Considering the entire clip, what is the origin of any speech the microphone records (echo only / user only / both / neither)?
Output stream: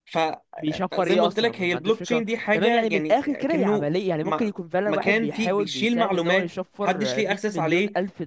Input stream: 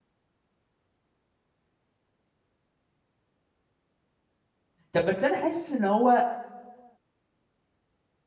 user only